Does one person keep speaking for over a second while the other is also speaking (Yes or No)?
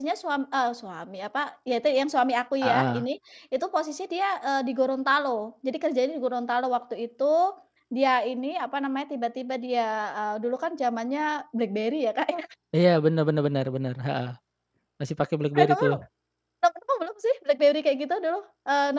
No